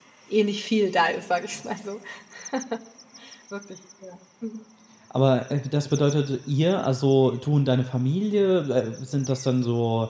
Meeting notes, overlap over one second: none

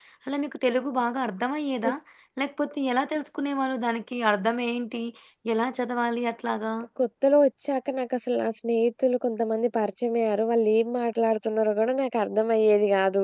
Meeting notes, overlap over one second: none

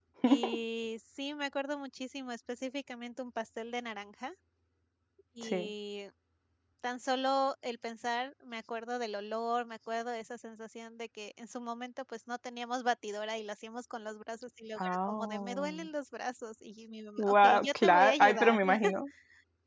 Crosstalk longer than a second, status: present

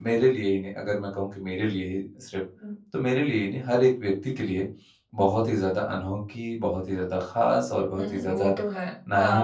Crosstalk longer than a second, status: none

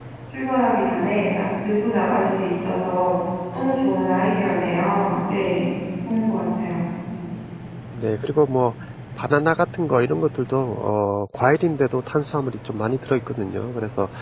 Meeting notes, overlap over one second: none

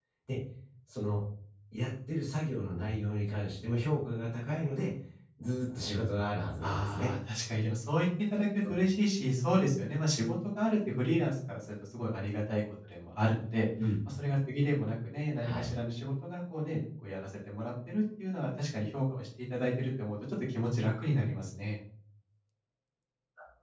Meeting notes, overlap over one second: none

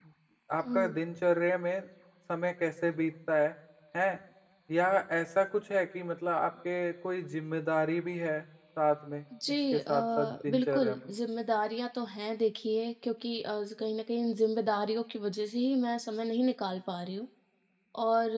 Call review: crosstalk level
present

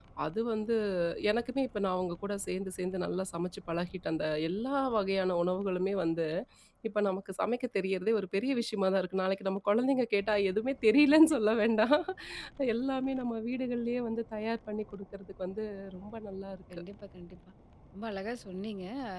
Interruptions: none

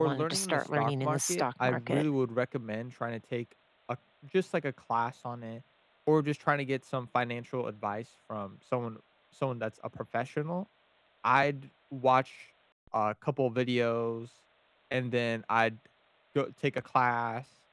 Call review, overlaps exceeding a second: present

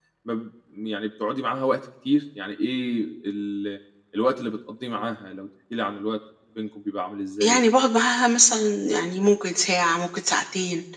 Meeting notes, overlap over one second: none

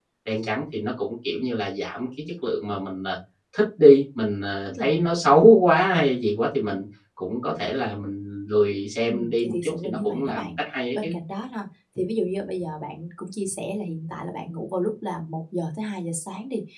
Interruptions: present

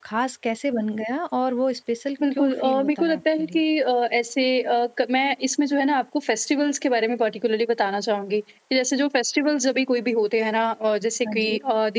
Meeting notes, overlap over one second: present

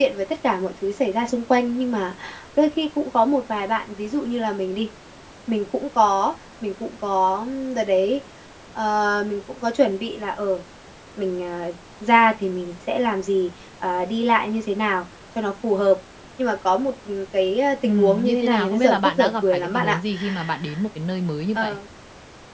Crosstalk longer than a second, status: present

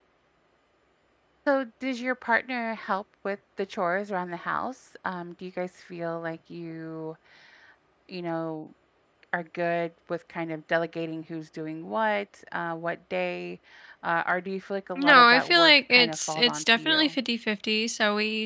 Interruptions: present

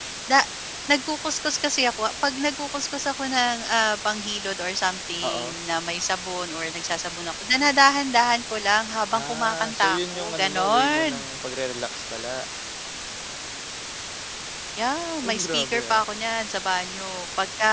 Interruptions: present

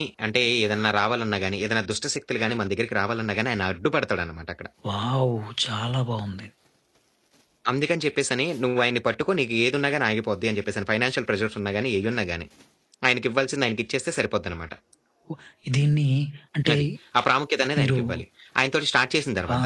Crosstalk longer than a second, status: none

